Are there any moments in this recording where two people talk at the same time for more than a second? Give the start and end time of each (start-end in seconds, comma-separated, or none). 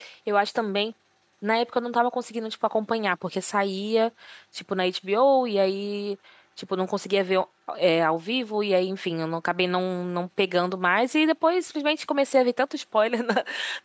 none